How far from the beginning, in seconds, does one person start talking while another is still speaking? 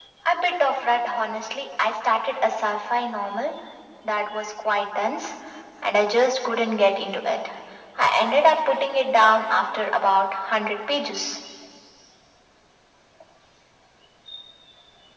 none

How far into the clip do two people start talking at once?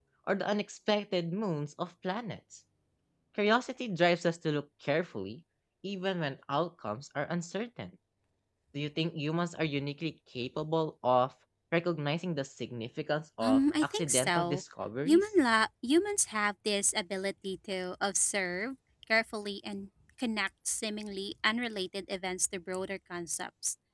13.4 s

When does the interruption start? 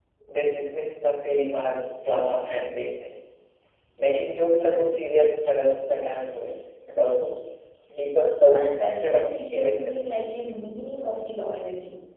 8.5 s

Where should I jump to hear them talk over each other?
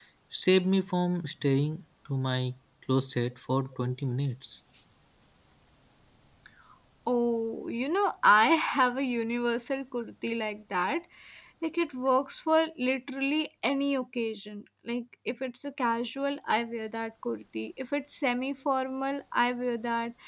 none

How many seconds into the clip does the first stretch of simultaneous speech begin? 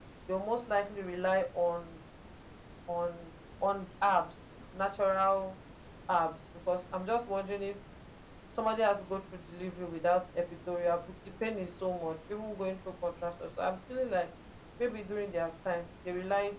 none

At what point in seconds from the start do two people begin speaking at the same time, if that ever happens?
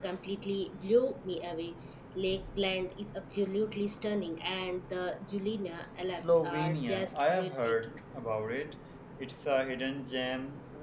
6.1 s

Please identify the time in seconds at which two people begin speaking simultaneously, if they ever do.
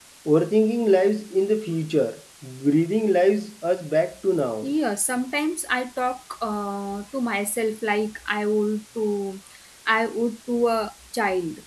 none

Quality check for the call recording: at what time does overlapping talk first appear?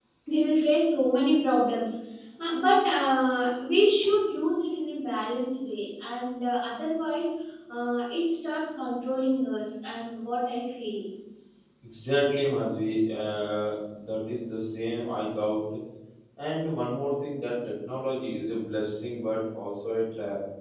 none

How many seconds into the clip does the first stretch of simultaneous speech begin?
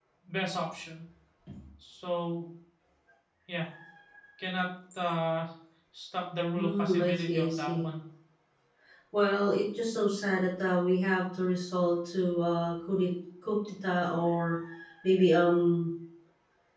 6.5 s

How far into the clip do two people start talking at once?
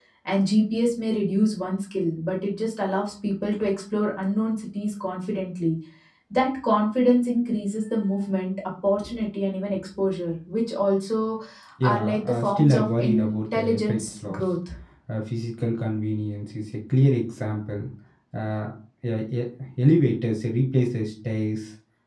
11.8 s

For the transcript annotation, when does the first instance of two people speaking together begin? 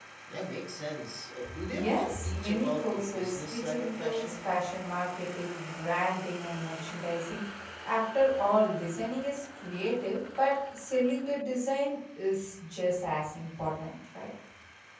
1.4 s

